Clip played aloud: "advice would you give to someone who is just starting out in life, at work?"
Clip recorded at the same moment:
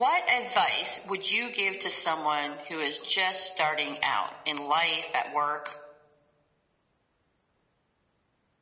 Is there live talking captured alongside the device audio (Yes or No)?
No